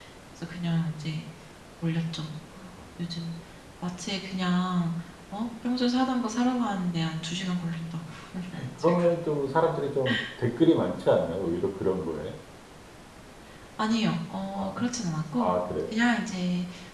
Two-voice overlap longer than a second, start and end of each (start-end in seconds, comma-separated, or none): none